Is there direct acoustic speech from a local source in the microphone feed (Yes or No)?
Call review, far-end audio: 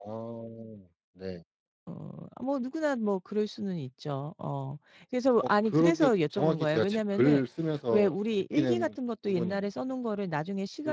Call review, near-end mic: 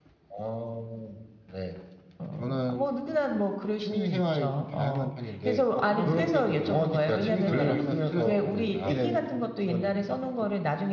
Yes